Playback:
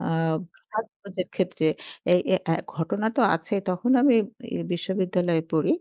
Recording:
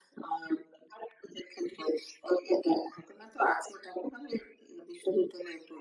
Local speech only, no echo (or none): none